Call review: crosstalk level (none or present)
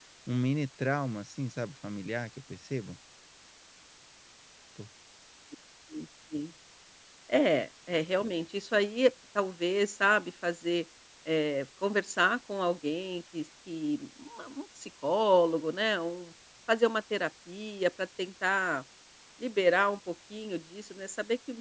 none